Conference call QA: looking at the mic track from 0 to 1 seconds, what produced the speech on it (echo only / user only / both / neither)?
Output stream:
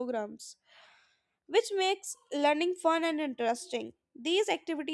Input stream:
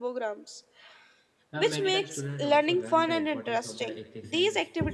echo only